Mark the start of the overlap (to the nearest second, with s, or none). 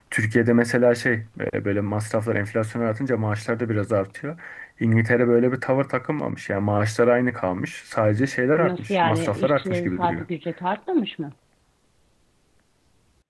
9 s